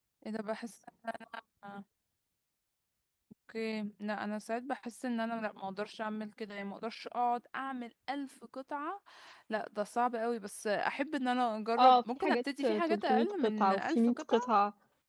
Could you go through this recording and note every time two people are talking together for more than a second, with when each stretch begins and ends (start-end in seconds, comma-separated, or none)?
11.8-14.5